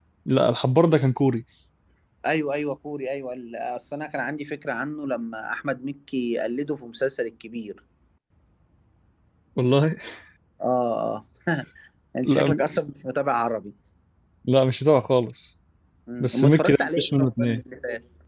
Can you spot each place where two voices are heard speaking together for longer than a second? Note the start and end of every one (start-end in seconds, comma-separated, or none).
16.2-17.6